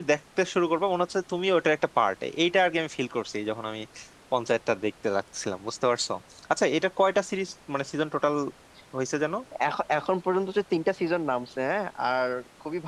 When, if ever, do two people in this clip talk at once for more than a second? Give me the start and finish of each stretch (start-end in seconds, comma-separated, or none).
none